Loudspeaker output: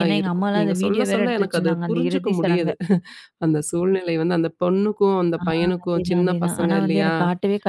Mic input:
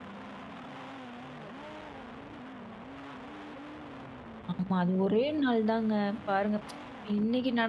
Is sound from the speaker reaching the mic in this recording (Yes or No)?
No